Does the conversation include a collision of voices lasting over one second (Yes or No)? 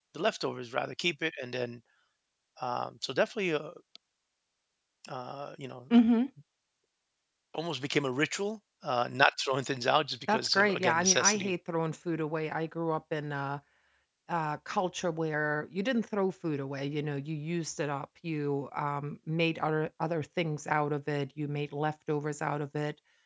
Yes